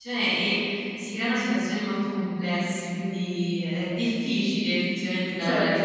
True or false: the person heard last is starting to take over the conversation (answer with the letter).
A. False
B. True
B